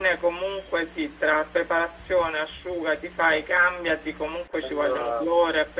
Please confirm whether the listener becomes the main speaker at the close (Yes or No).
No